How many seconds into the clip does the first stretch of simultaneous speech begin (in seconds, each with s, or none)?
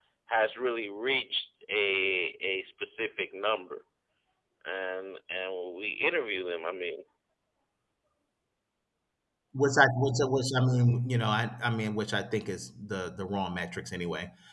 none